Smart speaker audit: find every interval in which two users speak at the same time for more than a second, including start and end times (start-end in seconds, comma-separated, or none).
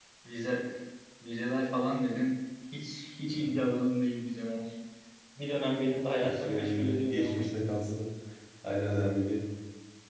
6.2-7.5